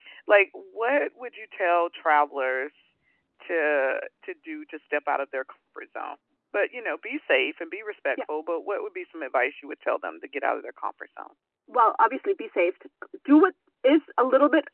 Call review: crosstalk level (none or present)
none